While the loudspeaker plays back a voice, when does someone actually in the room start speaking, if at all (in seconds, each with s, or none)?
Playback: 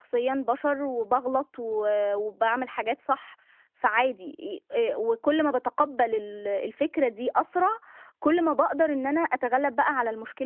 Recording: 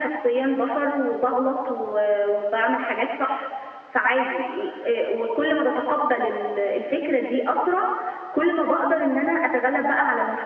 none